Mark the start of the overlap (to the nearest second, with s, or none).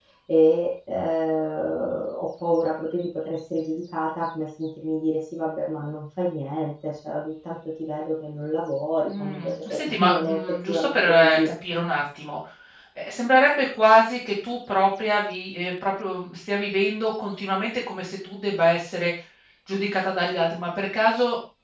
9 s